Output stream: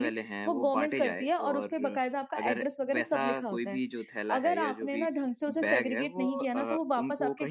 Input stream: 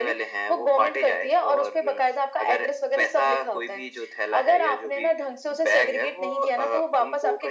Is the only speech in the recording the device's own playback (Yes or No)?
Yes